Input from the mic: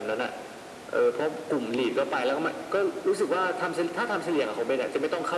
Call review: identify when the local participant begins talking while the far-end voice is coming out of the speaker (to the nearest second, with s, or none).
none